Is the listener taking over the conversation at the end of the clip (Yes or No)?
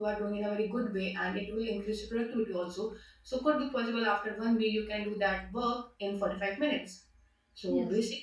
No